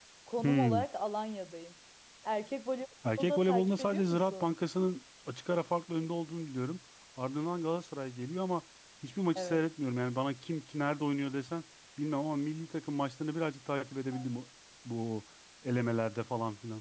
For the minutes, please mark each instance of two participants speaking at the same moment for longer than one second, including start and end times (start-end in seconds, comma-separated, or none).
3.2-4.5